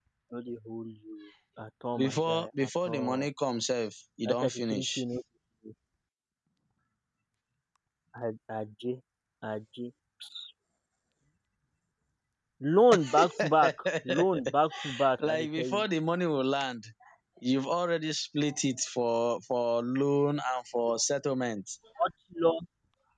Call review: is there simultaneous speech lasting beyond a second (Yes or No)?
Yes